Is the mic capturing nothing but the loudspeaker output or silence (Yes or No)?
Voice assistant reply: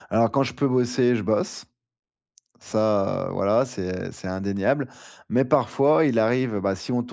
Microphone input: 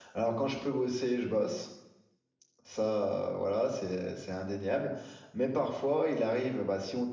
Yes